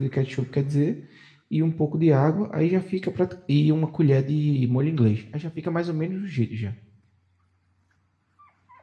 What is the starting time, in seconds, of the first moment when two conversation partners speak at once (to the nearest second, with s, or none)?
none